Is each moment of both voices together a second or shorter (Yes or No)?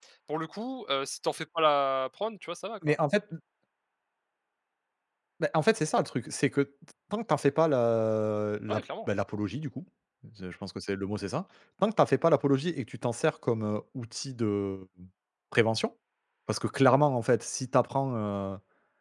Yes